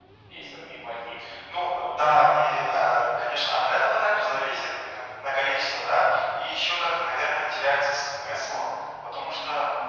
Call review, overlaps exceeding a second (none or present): present